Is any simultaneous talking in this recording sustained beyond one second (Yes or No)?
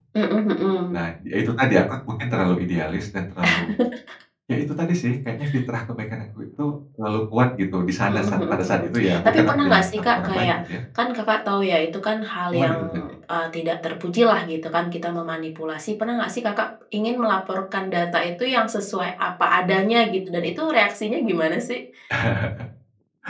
Yes